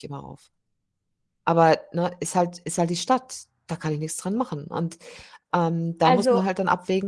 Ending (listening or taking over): listening